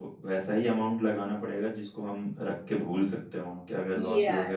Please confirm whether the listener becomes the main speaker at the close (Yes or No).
Yes